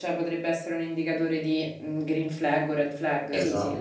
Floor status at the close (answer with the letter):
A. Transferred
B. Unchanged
A